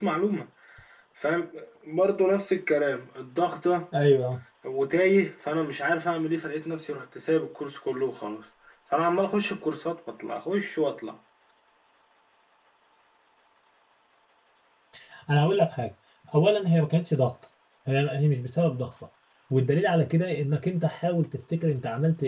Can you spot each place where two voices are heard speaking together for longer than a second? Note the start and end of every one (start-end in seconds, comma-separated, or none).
none